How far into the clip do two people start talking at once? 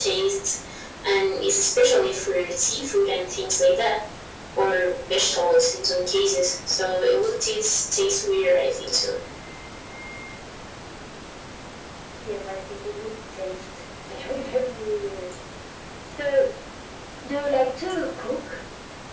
none

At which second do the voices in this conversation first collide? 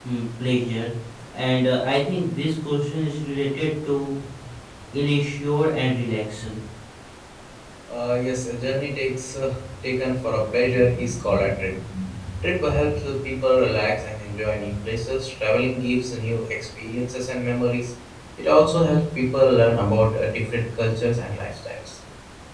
none

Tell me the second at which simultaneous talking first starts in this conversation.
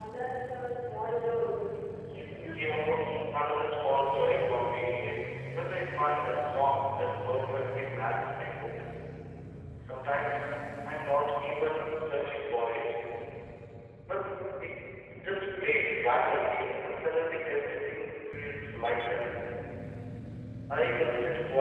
2.3 s

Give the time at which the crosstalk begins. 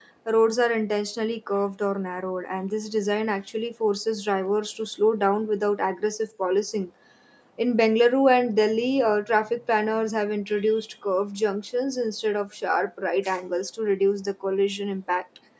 none

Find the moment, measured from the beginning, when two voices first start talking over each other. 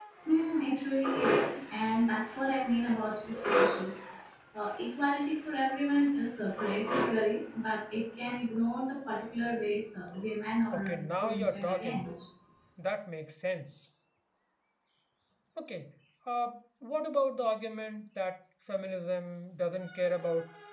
10.7 s

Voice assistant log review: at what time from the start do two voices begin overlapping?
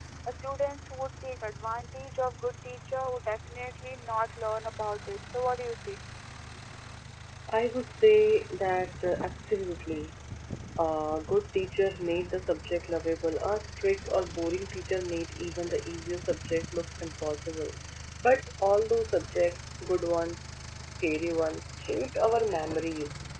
none

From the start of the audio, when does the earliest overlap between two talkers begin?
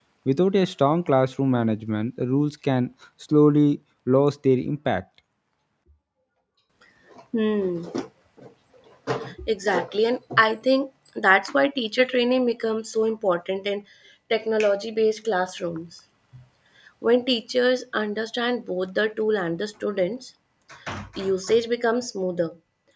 none

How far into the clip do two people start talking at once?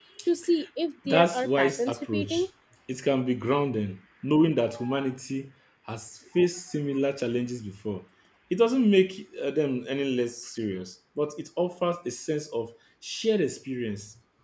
1.1 s

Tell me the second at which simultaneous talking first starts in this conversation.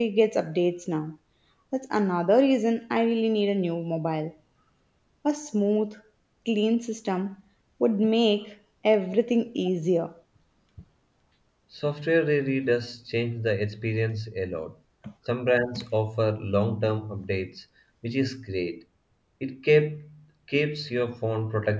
none

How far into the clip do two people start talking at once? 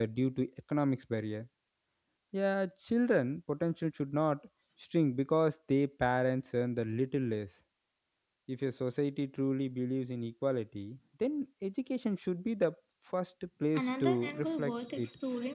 13.8 s

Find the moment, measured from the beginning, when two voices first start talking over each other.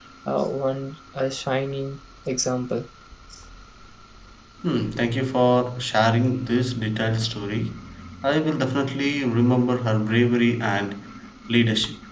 none

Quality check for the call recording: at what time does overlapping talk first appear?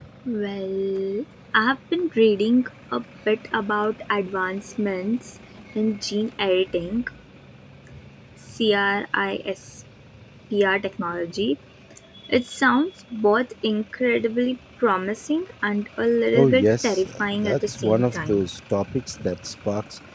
16.3 s

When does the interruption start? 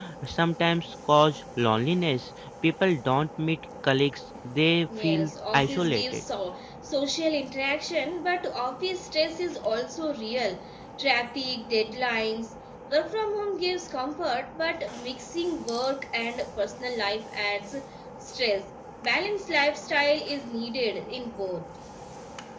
4.9 s

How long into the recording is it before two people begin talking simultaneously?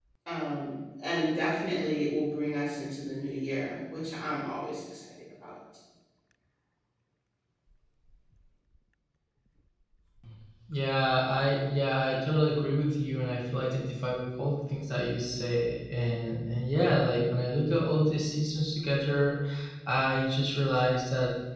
none

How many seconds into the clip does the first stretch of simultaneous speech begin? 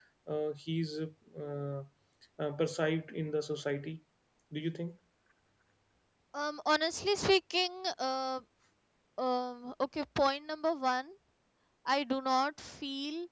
none

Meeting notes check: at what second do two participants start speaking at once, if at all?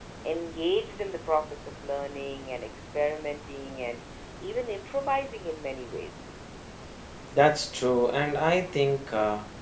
none

